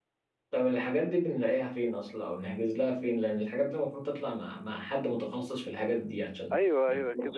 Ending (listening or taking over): taking over